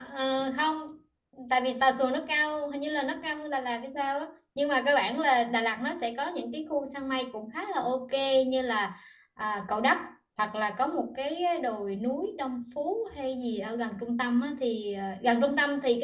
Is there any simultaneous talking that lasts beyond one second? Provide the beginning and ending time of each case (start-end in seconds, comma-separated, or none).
none